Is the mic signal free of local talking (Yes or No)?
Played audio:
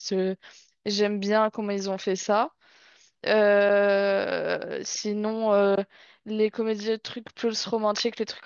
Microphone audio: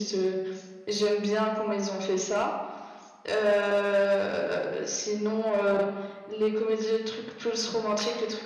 Yes